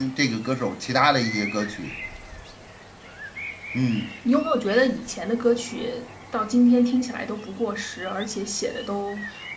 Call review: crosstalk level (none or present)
none